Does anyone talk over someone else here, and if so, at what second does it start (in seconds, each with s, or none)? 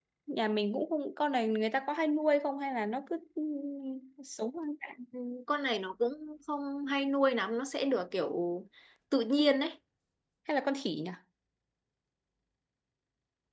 none